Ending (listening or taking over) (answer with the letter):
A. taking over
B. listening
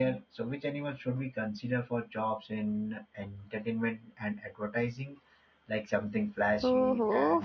A